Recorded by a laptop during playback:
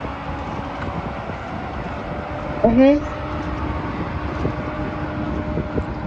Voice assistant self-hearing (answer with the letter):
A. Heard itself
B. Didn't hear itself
B